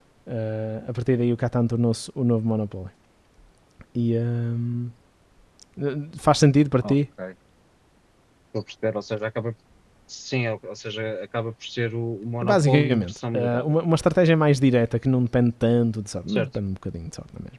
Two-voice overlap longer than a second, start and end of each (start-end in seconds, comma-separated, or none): 12.4-13.8